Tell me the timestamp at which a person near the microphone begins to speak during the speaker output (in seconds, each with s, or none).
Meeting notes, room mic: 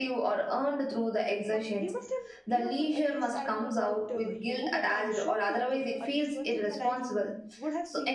1.5 s